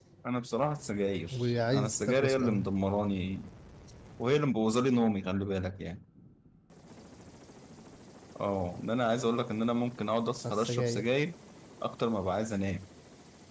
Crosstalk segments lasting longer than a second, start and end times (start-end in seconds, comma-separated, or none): 1.3-2.7